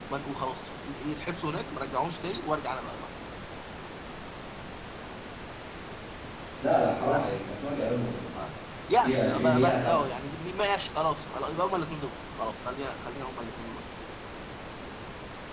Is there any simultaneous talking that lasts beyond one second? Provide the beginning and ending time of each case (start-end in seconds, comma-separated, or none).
9.0-10.2